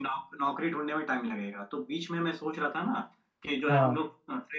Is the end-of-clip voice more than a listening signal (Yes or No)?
No